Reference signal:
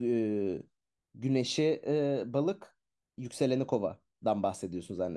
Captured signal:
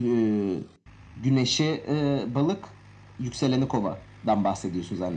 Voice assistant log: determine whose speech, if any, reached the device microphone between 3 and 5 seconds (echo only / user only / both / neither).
echo only